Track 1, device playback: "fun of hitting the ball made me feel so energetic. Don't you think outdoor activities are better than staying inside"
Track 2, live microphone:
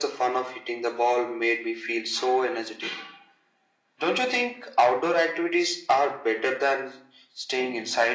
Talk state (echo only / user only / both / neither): echo only